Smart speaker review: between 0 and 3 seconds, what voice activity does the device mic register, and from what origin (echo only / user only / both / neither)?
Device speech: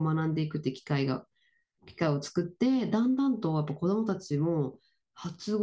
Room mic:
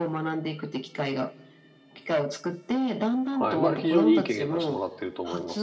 echo only